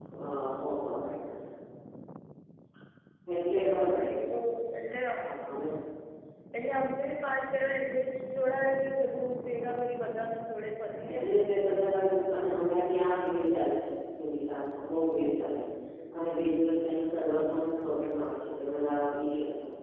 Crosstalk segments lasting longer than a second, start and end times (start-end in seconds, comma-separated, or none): none